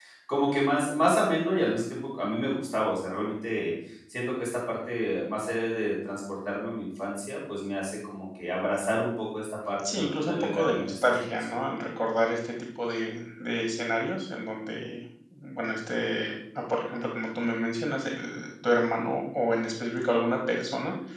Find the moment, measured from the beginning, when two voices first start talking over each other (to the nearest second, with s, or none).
10 s